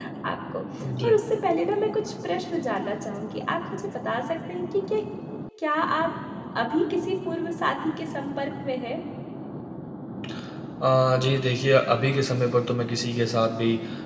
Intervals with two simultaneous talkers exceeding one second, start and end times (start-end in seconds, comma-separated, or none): none